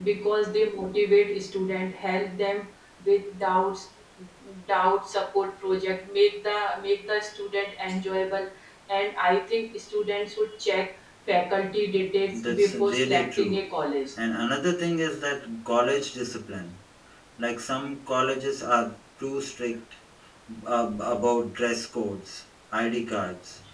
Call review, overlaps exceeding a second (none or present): present